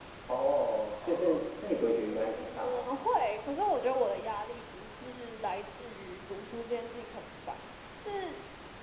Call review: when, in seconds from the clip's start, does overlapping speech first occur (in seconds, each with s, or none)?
0.9 s